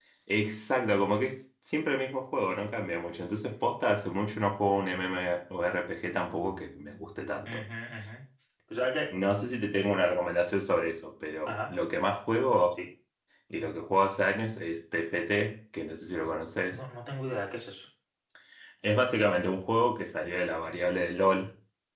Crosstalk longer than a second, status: none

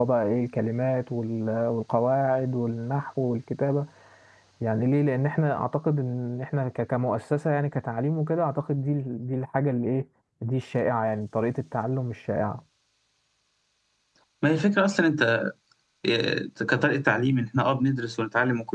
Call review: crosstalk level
none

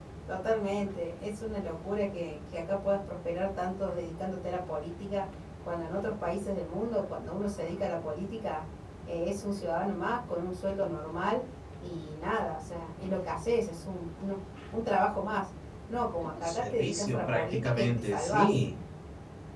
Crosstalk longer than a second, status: present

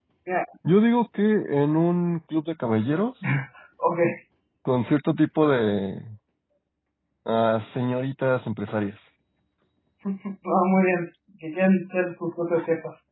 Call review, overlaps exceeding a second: none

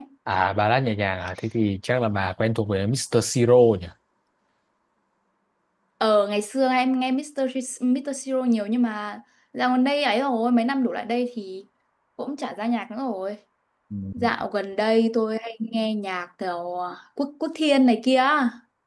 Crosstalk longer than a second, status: none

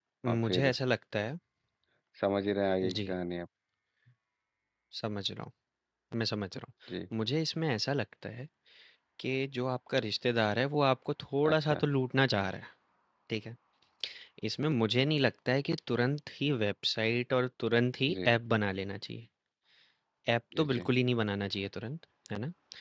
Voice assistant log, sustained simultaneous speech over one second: none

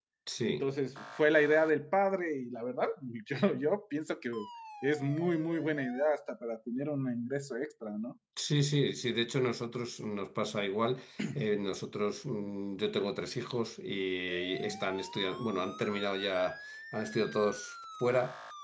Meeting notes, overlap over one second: none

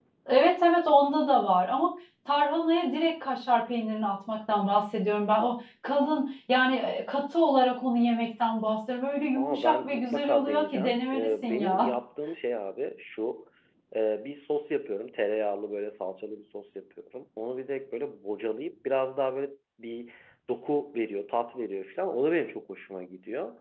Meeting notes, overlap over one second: present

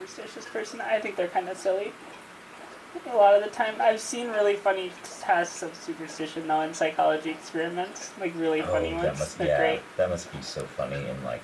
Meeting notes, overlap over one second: present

